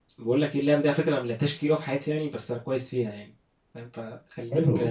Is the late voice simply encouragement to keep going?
No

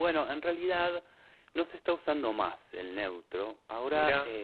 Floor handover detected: No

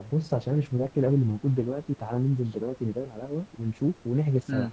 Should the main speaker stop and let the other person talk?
Yes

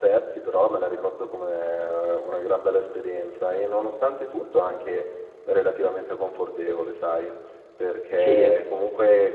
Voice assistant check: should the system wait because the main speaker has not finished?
Yes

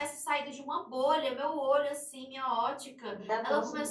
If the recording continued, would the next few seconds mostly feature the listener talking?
No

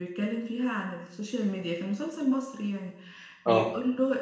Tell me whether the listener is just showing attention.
Yes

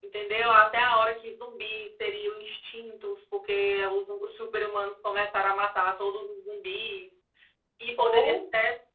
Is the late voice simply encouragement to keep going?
Yes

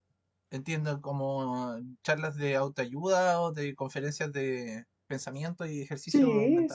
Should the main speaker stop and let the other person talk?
Yes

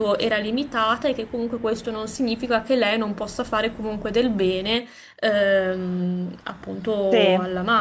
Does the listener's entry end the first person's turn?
No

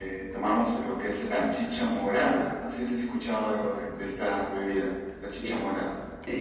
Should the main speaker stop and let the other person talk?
Yes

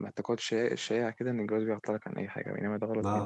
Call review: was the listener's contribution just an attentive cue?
No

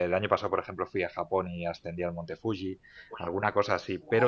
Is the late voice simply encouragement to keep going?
Yes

